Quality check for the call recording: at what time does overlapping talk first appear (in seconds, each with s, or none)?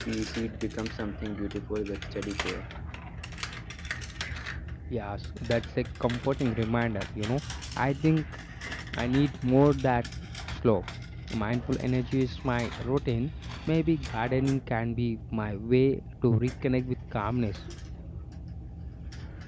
none